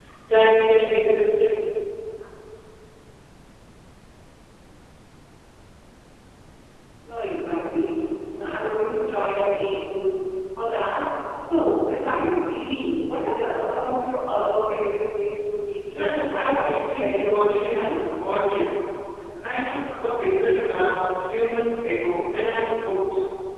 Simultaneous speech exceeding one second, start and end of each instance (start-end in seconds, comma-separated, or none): 15.9-17.9